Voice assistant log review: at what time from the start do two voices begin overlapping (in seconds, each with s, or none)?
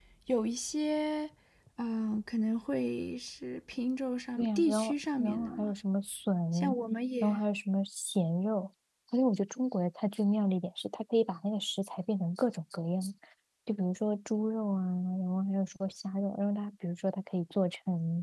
4.4 s